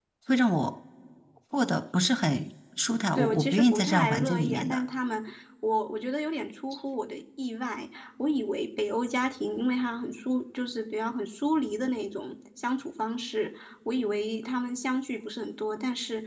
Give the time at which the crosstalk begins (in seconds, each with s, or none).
3.2 s